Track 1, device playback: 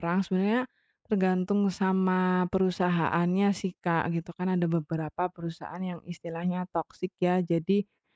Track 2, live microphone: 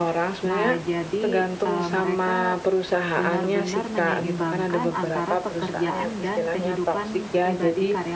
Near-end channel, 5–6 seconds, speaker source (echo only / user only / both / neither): both